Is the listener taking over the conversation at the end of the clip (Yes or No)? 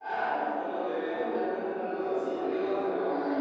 Yes